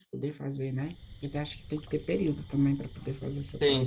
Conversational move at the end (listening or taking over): taking over